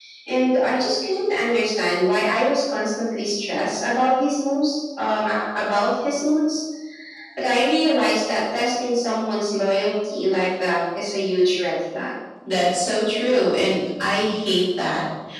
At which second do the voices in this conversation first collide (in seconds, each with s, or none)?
none